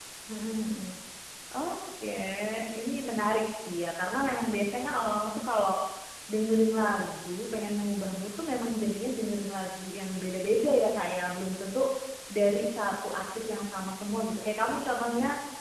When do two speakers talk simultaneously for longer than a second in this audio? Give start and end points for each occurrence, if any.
none

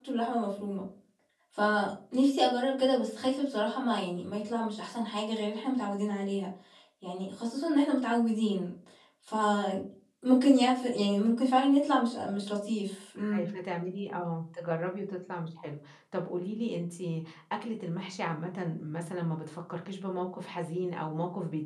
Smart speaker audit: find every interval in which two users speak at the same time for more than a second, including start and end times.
none

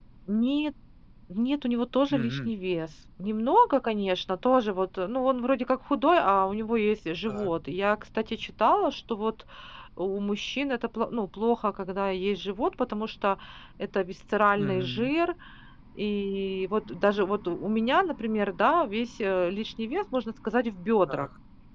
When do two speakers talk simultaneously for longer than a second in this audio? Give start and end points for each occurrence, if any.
none

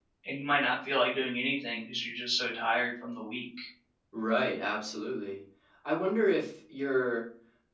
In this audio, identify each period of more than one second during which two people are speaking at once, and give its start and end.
none

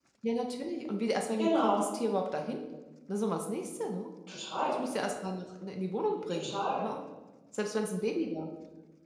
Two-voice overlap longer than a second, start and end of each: none

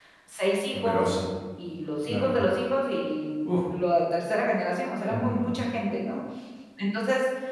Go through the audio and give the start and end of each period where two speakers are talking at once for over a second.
none

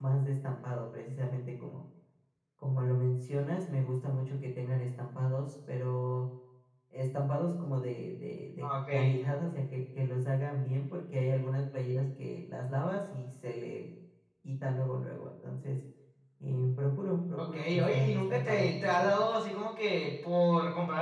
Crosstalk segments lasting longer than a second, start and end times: 17.4-19.2

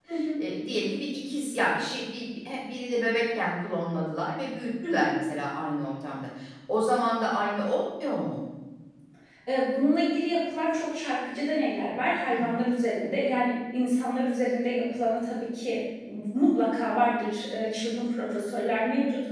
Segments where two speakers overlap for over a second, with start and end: none

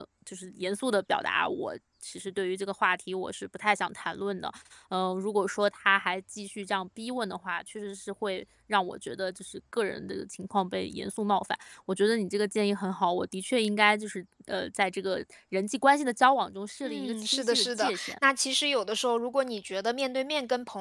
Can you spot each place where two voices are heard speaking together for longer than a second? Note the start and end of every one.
16.8-18.1

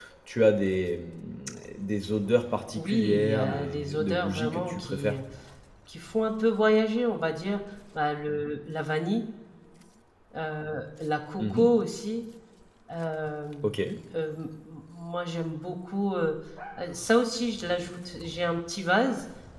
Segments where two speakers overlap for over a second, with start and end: 2.8-5.1

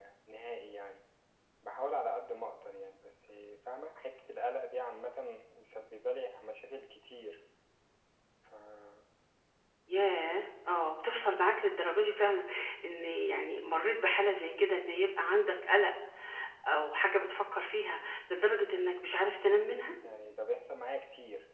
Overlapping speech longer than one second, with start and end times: none

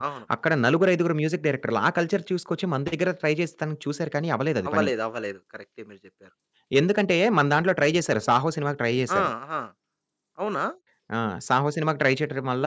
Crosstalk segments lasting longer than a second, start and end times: none

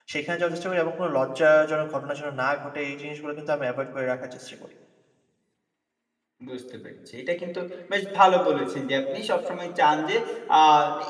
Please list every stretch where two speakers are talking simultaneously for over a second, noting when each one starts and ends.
none

